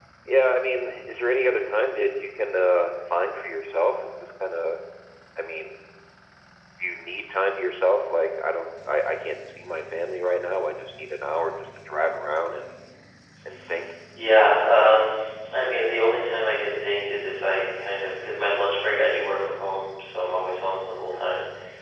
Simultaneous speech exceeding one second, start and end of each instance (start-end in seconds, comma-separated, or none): none